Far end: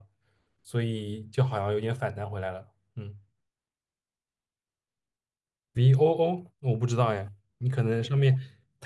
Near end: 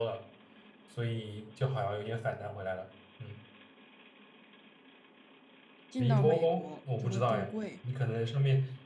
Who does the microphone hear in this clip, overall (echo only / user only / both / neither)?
both